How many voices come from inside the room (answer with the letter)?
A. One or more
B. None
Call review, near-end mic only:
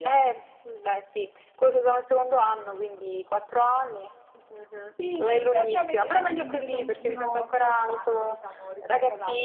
A